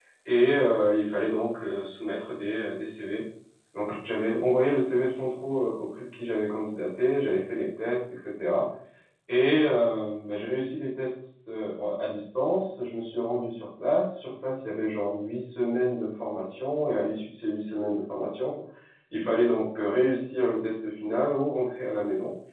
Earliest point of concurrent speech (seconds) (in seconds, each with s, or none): none